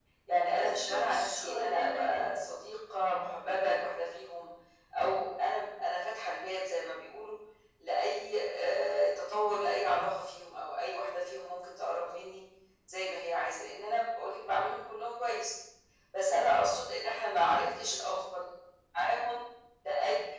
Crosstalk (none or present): present